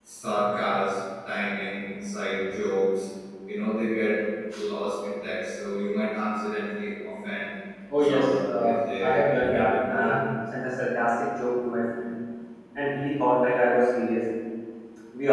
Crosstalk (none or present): present